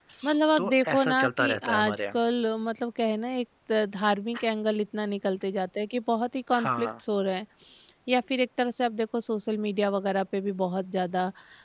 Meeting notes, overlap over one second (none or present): present